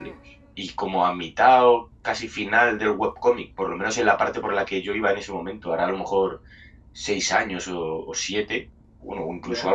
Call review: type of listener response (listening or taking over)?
listening